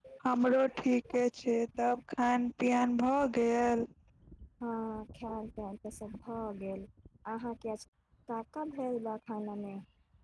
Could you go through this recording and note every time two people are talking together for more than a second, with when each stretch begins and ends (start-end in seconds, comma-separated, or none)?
none